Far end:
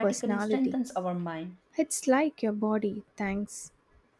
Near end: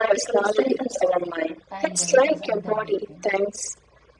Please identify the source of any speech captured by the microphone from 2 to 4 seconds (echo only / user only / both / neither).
both